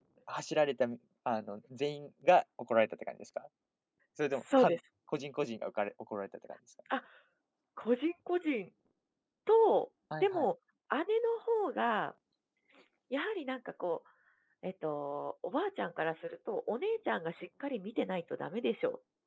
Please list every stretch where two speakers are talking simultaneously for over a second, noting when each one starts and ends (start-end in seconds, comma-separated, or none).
none